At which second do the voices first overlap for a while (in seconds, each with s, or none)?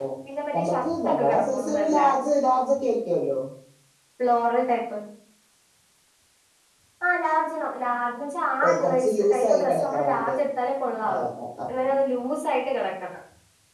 0.6 s